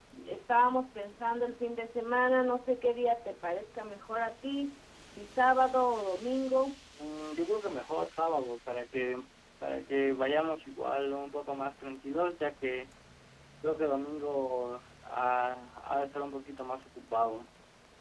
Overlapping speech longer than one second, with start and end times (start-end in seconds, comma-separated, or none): none